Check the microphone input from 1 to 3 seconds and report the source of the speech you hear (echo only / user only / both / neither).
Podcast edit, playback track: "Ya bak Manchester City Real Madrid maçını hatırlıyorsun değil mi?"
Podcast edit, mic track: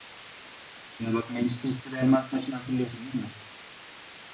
echo only